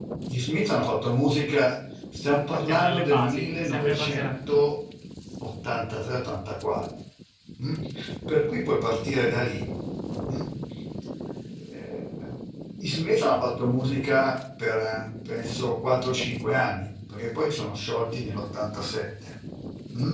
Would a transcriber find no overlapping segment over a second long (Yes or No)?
No